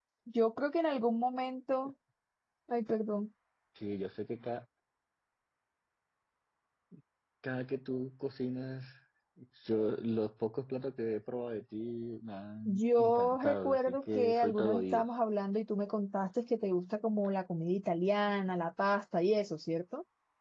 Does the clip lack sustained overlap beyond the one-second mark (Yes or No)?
No